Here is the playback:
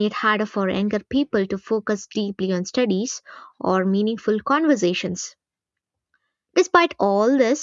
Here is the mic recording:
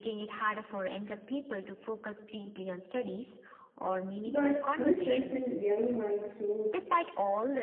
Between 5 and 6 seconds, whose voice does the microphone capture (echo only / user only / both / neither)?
both